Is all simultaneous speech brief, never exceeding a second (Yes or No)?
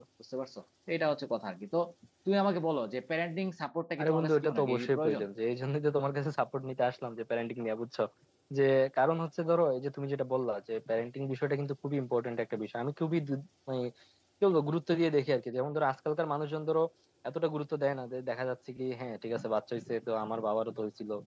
No